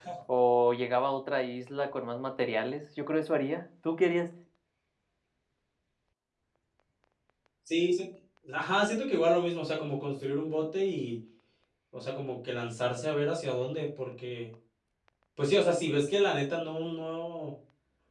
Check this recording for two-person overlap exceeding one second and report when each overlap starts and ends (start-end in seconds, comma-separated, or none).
none